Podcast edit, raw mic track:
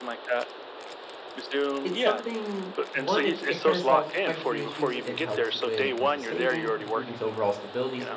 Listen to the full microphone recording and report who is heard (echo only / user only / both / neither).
both